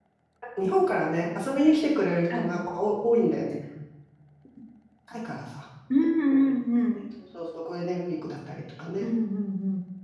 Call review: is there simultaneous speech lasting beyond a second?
No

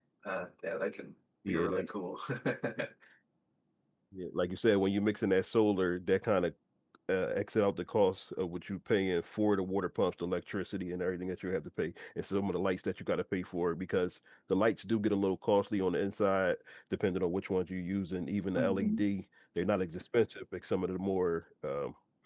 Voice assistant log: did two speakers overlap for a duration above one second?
No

